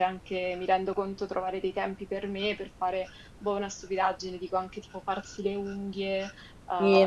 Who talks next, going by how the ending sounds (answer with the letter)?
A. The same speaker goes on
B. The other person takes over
B